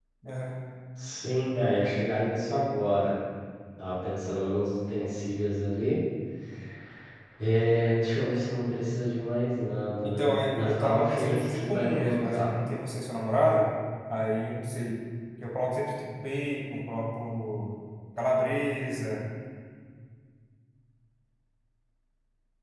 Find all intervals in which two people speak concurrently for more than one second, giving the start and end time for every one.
10.0-12.5

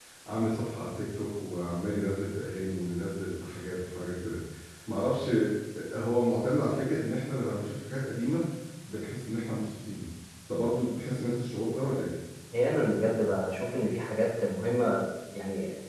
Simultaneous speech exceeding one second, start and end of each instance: none

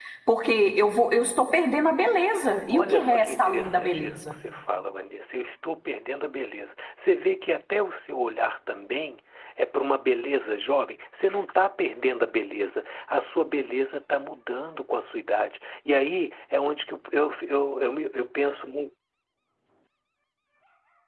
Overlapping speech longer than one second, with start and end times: 2.5-4.3

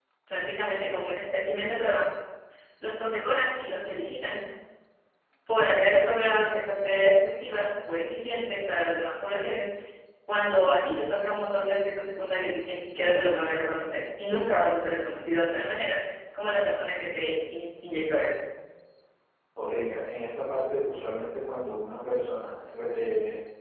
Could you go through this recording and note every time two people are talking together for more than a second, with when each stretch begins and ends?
none

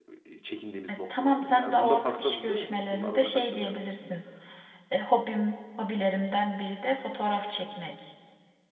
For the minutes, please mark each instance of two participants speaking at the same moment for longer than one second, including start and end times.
0.9-3.8

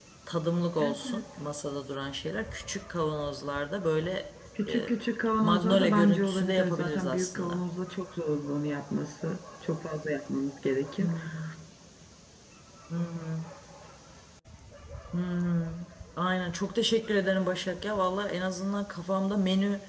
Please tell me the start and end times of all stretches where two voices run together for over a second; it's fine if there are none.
5.4-7.6

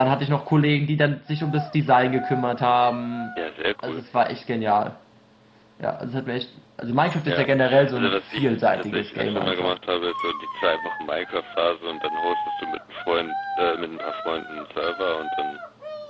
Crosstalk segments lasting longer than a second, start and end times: 7.9-9.8

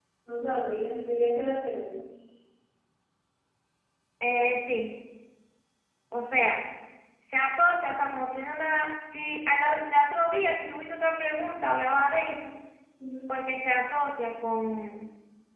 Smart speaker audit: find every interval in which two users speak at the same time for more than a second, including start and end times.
none

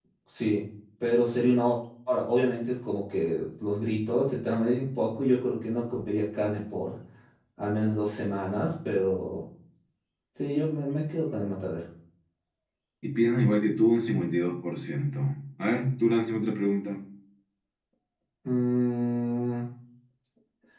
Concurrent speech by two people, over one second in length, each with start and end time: none

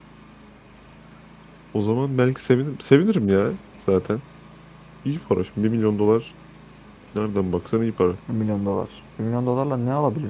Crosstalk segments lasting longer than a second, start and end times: none

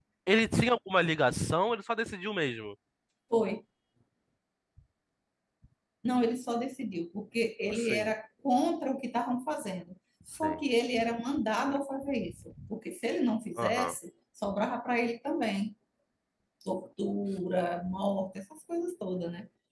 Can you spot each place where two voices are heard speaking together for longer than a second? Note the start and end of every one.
none

